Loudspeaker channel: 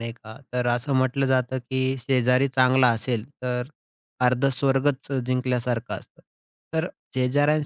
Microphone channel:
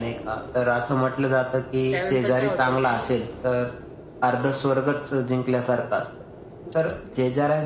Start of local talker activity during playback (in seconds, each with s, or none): 1.9 s